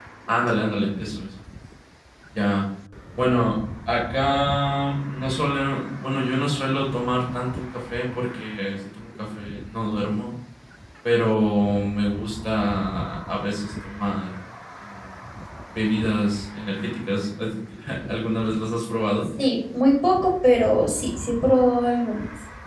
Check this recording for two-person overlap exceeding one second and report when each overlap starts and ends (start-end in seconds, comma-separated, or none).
none